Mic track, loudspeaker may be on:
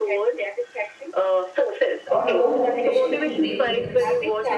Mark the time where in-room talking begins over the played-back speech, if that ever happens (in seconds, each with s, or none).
2.1 s